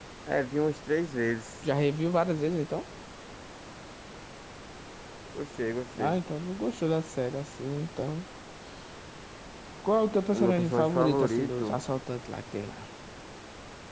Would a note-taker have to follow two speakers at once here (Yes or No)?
Yes